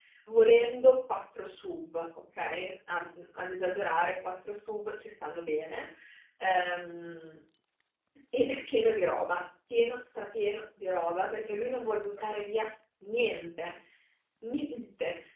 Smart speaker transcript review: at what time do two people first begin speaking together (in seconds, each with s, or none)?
none